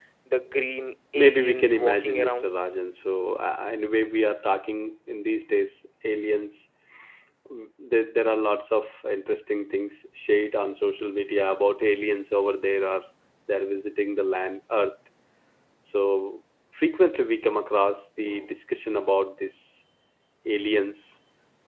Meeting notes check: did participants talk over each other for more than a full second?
Yes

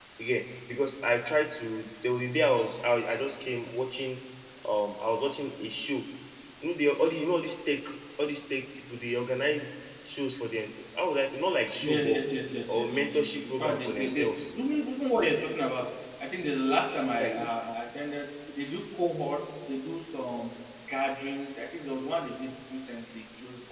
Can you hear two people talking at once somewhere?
Yes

